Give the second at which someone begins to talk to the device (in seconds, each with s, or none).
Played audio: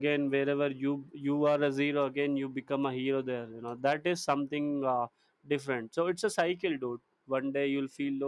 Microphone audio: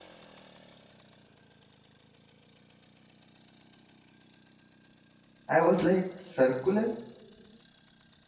5.6 s